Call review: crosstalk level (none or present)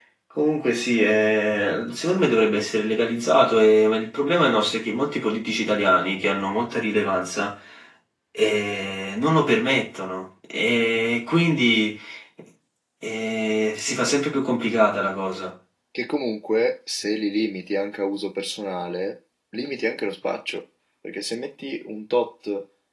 none